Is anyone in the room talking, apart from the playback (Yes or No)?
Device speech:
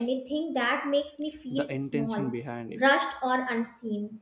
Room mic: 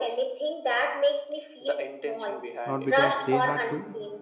Yes